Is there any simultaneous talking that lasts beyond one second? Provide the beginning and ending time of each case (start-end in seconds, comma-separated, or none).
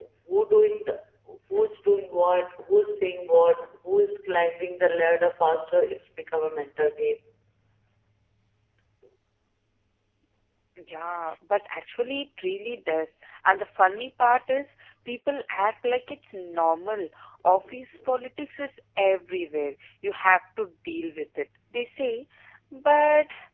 none